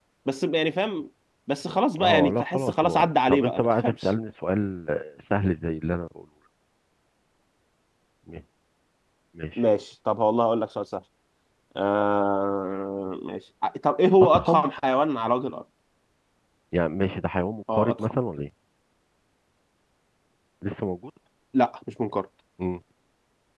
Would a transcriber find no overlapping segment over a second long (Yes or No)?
No